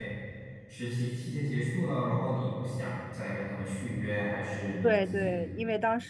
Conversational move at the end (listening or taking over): taking over